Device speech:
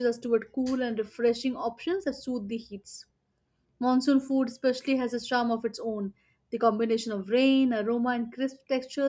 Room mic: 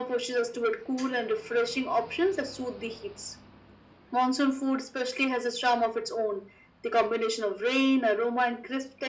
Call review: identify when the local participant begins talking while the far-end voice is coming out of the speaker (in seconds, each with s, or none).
none